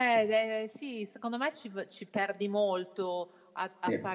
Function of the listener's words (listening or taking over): listening